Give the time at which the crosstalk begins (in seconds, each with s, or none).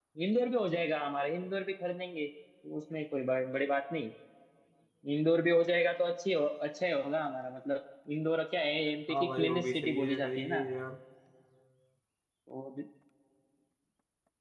9.1 s